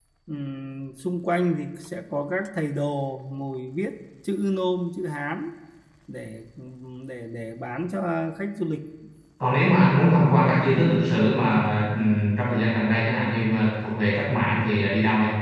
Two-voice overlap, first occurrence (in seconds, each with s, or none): none